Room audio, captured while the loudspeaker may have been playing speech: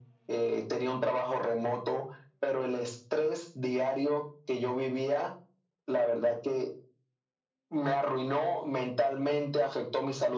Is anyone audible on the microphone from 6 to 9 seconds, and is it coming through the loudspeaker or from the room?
echo only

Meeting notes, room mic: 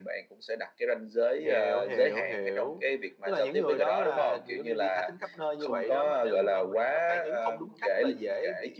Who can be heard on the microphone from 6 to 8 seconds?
both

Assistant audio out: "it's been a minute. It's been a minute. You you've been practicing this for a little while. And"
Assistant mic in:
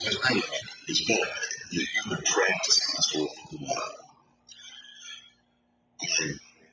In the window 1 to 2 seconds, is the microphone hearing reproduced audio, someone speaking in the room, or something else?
echo only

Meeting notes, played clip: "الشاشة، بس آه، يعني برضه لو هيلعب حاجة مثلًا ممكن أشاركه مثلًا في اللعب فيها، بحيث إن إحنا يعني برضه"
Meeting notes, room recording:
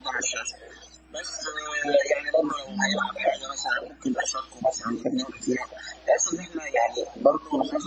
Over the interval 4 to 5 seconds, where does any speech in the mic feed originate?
echo only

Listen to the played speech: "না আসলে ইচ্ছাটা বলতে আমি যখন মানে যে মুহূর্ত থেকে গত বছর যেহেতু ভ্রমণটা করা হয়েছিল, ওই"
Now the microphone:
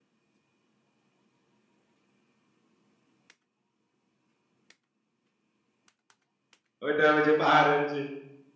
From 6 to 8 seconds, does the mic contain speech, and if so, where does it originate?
user only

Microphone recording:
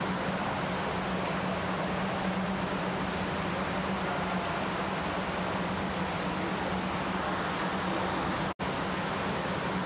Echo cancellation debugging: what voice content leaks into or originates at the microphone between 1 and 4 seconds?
neither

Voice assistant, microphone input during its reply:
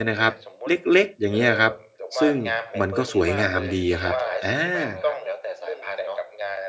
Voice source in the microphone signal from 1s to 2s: both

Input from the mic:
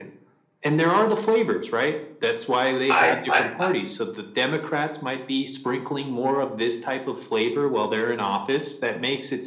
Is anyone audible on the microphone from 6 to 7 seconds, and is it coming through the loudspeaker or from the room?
echo only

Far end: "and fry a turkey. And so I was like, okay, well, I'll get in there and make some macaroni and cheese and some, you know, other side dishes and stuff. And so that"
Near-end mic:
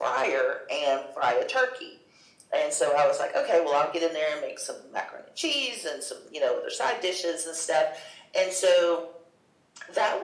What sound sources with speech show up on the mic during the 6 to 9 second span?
echo only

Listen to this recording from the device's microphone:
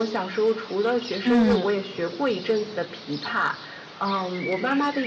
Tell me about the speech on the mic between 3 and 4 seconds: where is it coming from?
echo only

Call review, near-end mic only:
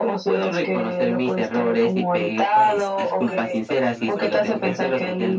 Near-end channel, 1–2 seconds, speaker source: echo only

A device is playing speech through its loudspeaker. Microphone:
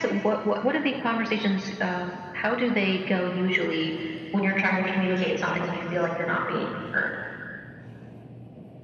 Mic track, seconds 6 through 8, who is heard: echo only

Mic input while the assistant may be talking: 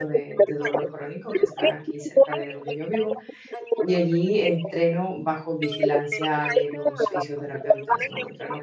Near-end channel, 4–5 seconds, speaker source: both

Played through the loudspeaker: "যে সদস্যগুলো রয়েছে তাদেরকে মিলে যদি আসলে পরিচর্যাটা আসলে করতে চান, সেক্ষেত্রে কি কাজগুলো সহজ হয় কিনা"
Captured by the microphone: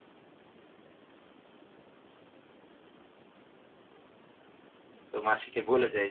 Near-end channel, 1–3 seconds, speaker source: neither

